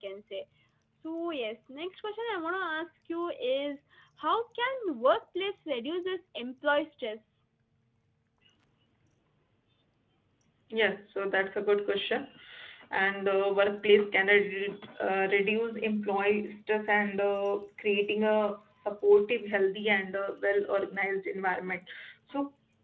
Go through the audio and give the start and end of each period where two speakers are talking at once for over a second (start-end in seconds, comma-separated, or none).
none